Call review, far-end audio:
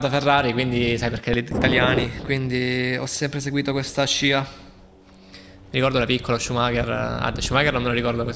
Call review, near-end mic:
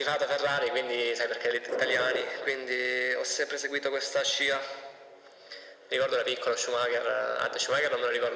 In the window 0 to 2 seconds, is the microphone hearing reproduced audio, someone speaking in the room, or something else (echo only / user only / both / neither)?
echo only